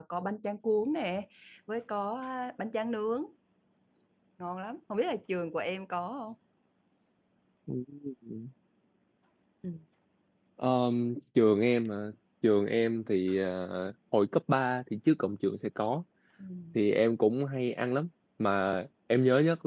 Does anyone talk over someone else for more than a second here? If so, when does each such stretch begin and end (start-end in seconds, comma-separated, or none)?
none